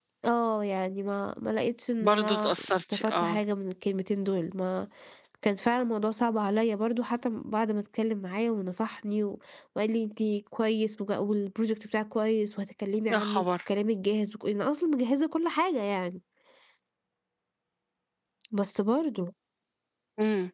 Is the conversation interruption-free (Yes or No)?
No